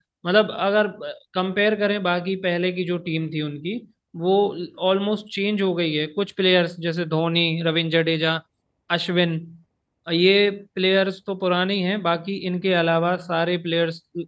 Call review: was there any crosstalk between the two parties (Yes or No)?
No